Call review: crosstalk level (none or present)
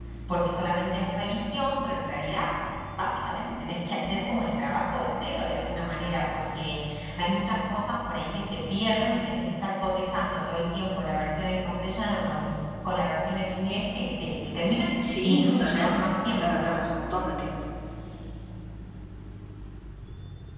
present